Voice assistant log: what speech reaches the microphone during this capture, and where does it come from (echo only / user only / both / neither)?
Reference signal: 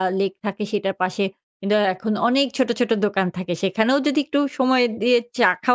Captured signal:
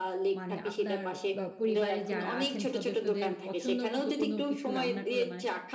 both